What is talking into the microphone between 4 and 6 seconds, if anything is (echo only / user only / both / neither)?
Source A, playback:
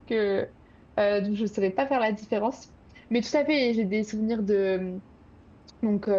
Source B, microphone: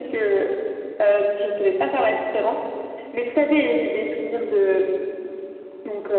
echo only